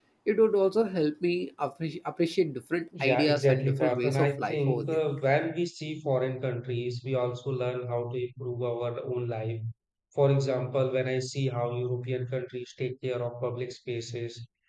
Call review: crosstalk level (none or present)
present